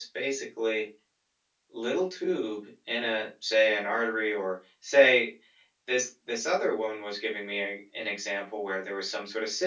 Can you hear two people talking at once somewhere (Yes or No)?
No